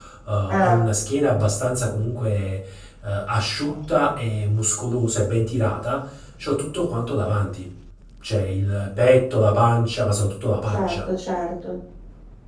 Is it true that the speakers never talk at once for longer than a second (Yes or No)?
Yes